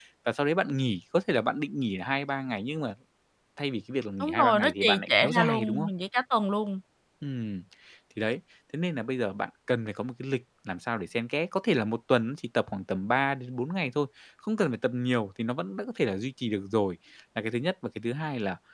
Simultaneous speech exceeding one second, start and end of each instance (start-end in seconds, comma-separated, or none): 4.2-5.9